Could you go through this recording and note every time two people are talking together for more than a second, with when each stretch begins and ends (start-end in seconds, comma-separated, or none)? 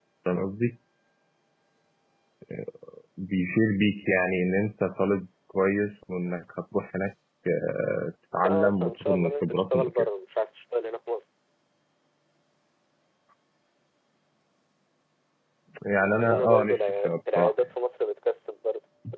8.4-10.1, 16.0-17.5